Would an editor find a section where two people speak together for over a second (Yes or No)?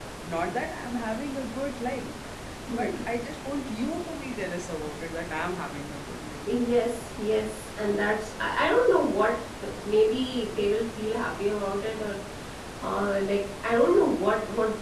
No